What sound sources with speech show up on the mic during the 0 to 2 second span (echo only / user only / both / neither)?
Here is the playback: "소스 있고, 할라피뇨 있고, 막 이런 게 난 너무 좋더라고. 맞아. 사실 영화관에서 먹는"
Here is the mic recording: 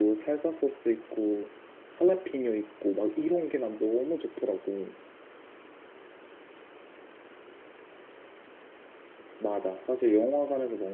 echo only